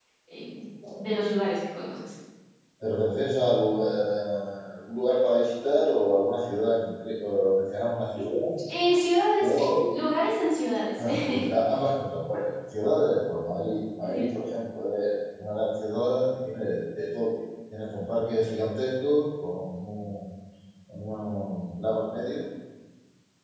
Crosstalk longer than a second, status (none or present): none